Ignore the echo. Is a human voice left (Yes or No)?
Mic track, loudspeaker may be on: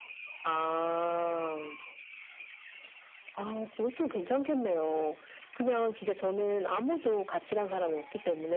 No